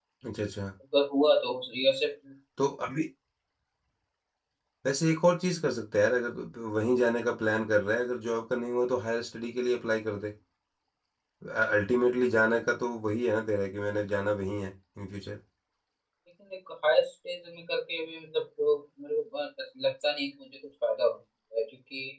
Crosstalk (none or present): none